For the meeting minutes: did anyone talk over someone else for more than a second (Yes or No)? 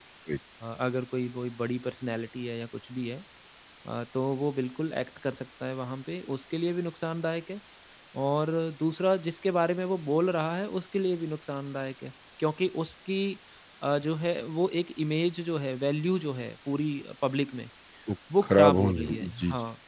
Yes